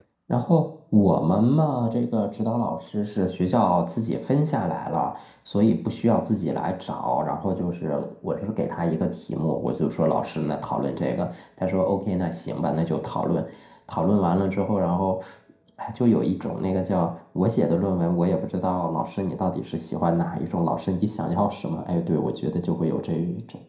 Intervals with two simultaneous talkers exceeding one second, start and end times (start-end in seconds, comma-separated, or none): none